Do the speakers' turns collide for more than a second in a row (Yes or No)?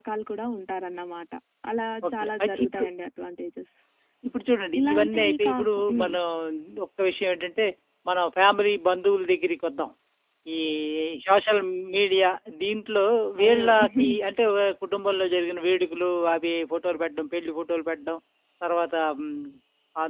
Yes